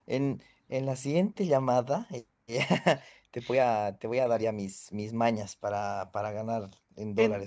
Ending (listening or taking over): taking over